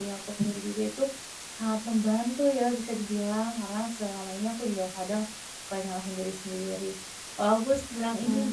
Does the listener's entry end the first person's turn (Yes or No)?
No